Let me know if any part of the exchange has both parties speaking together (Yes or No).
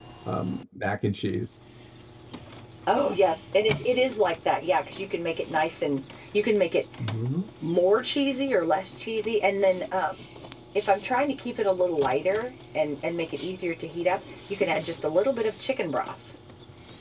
No